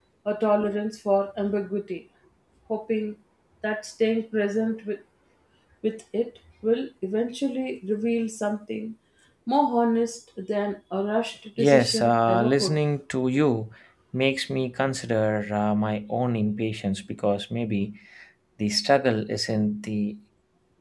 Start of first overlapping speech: 11.6 s

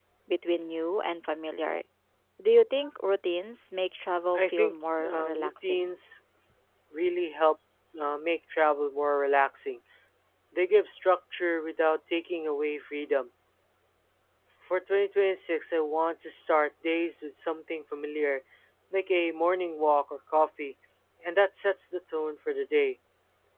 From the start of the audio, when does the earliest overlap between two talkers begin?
4.3 s

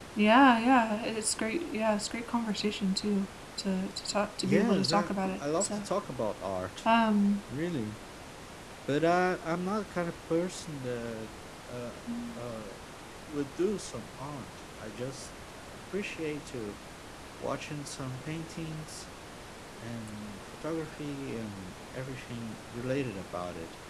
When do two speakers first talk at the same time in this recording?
4.4 s

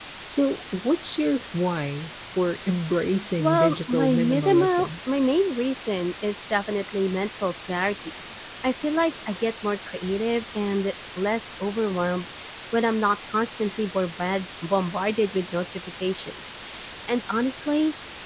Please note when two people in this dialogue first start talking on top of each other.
3.4 s

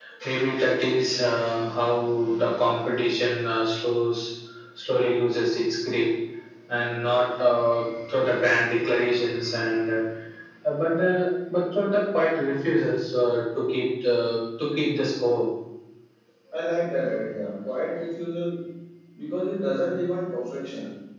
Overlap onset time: none

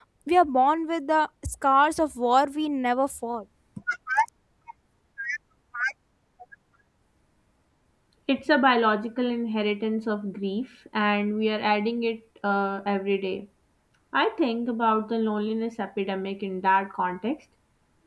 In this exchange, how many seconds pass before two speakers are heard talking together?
none

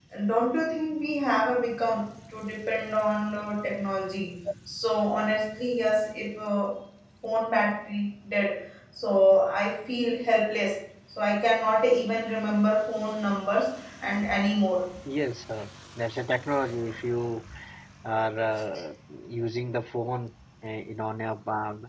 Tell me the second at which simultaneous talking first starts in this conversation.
none

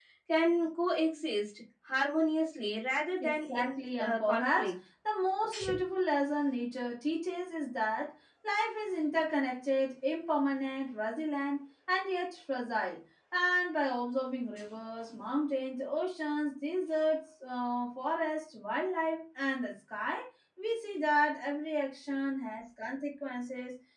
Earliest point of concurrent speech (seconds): 3.2 s

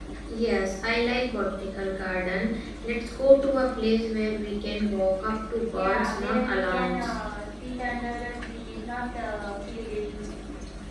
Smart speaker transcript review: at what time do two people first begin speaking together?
5.7 s

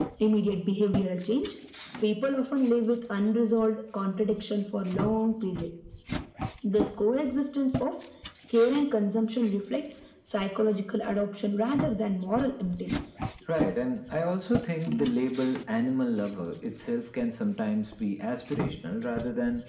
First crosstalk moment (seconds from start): none

